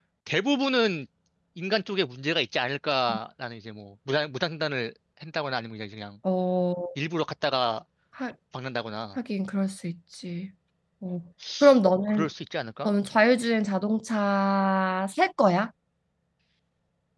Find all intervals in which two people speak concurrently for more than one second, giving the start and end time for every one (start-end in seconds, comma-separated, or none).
none